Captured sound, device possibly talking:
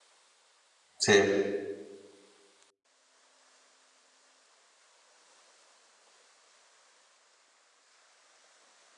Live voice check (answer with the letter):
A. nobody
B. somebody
B